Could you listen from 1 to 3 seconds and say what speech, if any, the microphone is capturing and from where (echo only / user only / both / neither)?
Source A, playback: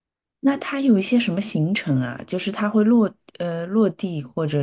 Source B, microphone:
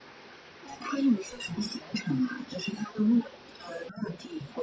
echo only